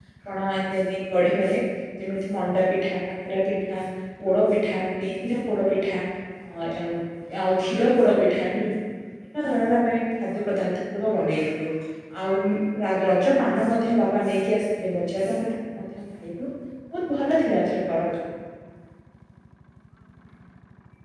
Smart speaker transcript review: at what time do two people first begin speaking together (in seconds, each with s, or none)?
none